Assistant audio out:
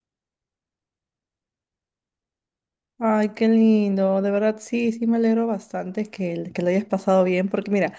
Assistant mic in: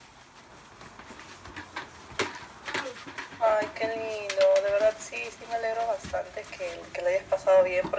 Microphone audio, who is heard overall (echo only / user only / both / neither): echo only